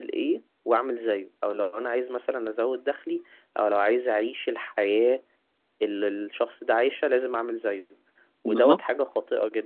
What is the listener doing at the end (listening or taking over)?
listening